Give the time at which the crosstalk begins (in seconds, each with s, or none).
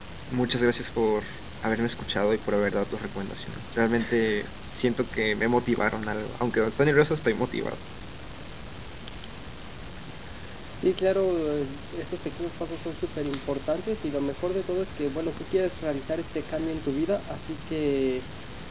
none